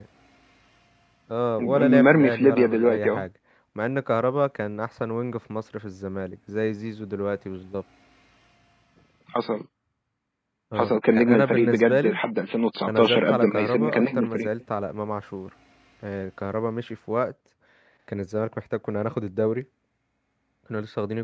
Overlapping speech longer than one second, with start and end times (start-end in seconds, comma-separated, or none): 1.6-3.2, 10.8-12.2, 12.9-14.5